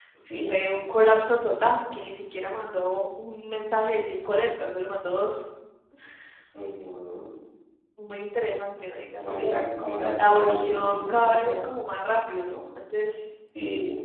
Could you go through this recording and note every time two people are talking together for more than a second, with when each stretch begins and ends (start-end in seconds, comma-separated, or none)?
10.2-11.6